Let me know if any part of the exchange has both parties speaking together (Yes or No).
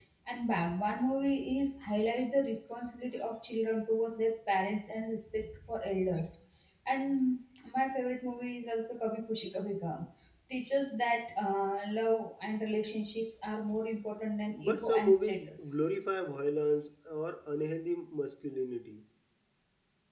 Yes